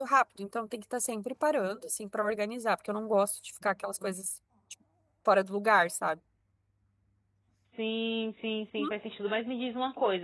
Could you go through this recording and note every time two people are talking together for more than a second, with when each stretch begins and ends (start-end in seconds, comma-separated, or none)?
none